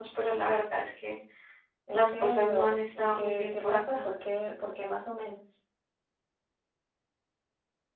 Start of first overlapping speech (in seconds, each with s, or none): 1.9 s